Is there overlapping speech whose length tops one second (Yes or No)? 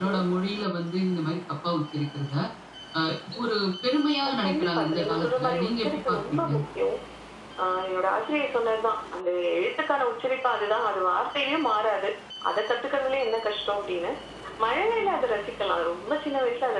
Yes